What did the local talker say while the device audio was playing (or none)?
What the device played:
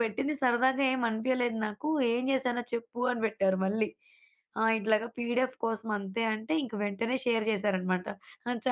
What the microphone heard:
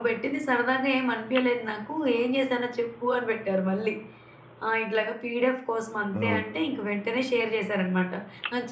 ఆ!